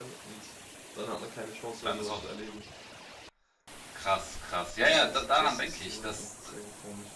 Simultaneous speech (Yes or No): Yes